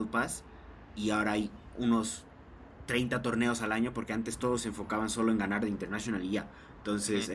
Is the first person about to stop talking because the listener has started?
No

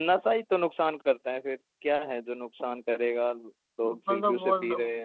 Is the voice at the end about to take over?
Yes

